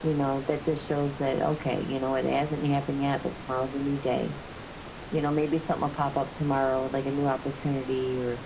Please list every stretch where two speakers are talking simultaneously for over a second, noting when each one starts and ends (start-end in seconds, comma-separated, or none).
none